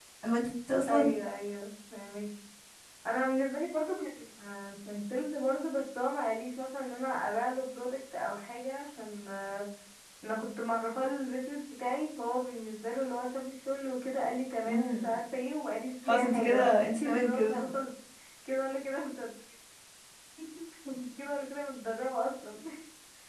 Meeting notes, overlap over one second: present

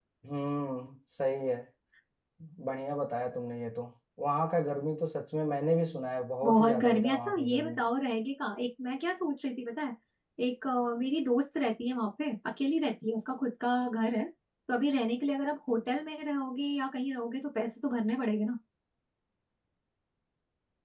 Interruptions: present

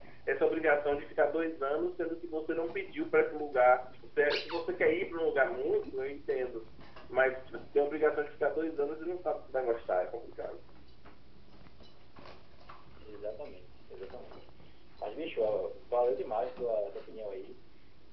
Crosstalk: none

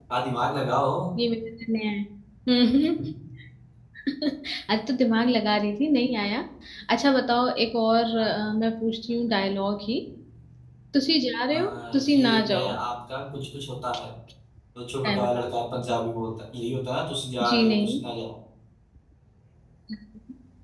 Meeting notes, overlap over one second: present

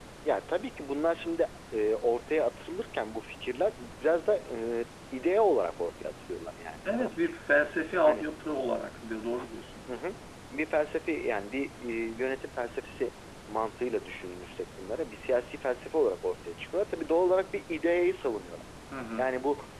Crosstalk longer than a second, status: none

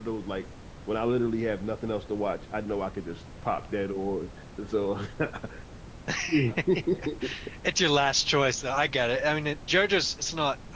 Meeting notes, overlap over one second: none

